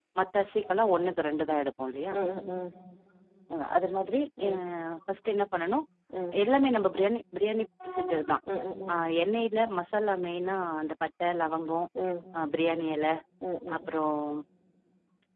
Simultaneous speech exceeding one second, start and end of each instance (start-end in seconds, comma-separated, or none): none